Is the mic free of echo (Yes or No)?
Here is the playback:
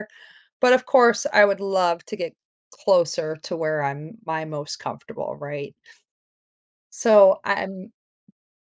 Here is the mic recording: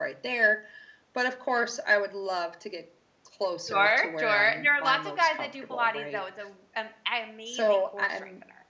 No